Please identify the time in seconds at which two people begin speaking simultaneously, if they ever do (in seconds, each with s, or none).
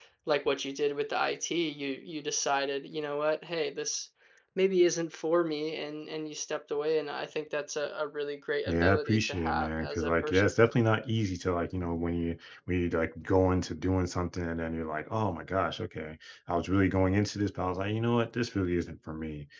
8.7 s